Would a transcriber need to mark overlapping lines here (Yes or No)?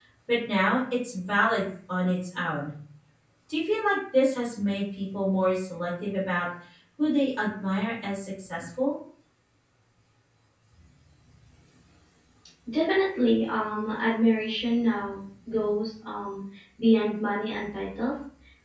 No